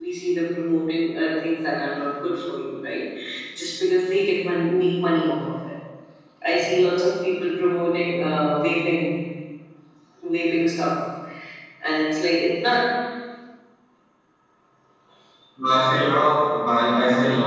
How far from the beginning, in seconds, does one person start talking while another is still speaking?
none

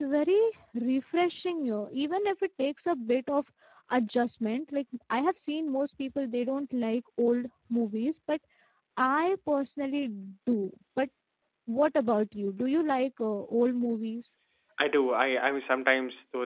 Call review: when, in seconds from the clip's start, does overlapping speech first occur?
none

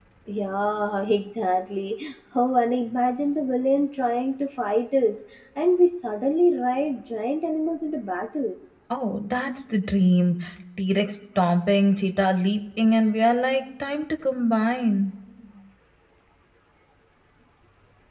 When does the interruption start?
none

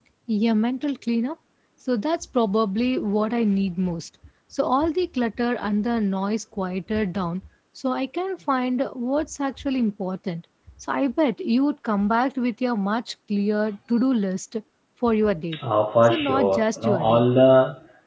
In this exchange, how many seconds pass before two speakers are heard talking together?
16 s

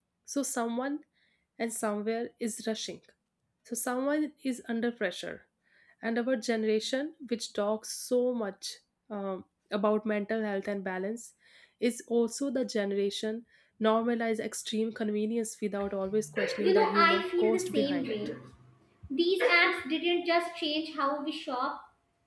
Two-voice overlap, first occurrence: 17 s

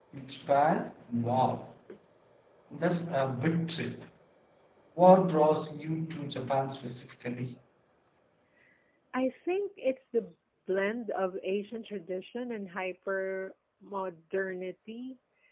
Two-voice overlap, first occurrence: none

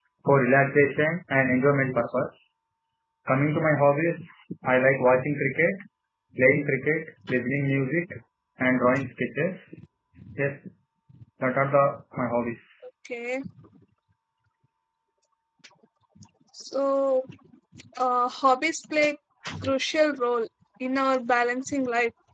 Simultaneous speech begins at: none

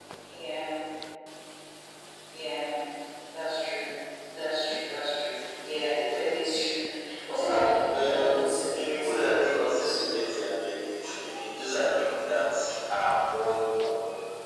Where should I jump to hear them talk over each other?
8 s

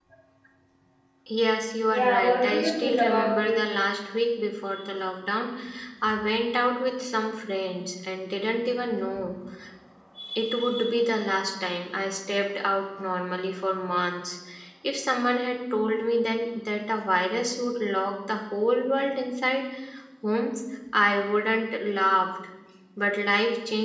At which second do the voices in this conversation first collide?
2 s

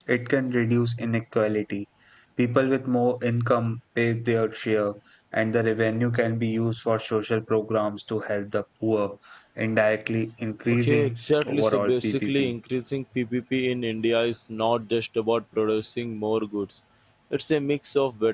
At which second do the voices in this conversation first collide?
11 s

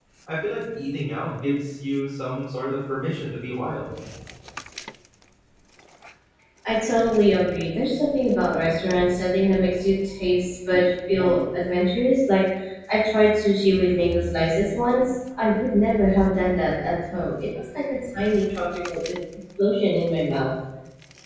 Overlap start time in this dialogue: none

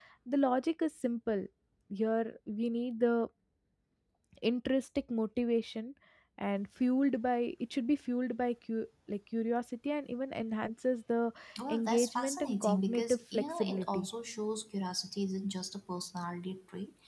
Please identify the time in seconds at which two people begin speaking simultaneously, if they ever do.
12 s

